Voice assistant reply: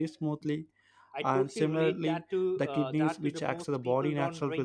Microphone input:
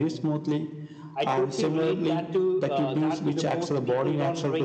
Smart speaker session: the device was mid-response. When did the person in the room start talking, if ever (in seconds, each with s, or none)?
none